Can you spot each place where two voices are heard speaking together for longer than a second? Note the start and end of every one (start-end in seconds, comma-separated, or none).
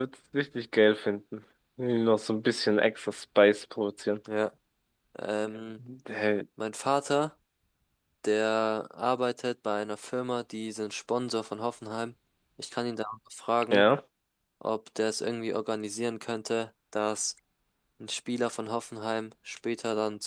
none